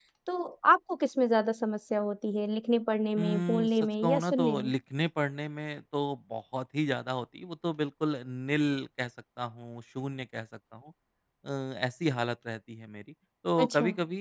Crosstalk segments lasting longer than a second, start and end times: 3.2-4.7

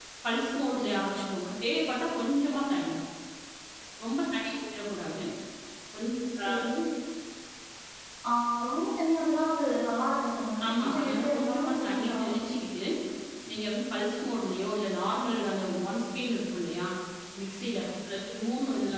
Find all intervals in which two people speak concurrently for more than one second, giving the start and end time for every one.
10.7-12.4

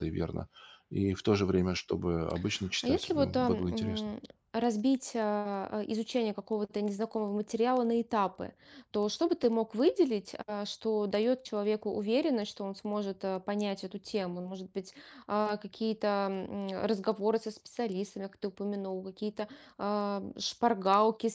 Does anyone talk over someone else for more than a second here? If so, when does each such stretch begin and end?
2.8-4.1

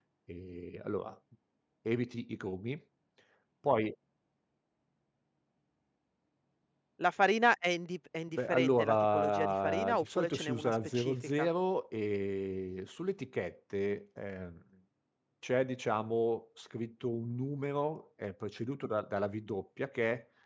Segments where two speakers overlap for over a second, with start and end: 8.3-11.5

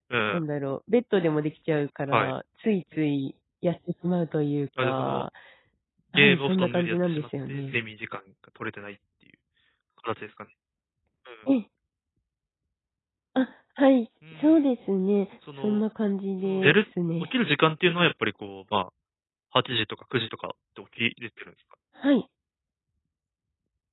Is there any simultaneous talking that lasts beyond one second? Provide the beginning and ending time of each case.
6.2-7.8

